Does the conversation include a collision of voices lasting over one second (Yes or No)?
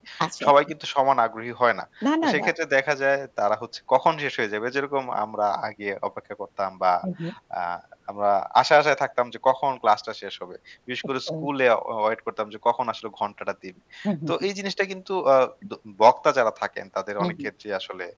No